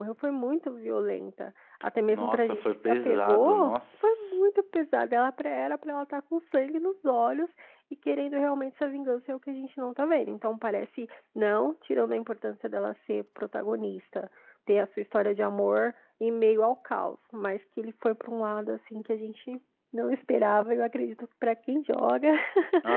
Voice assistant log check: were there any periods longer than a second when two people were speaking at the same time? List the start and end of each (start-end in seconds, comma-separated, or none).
2.1-4.4